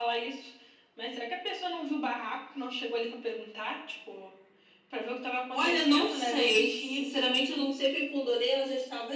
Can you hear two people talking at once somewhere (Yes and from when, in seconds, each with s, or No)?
Yes, from 5.5 s